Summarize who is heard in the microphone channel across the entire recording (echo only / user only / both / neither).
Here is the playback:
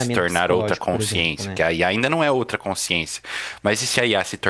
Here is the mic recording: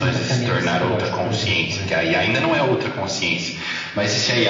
both